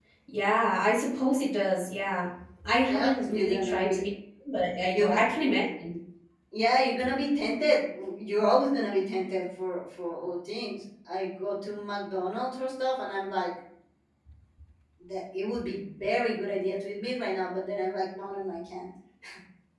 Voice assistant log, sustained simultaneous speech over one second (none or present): present